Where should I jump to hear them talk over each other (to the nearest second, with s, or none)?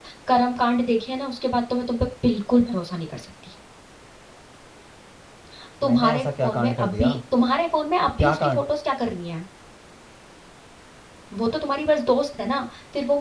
6 s